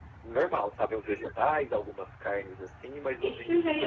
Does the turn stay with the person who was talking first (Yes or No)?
No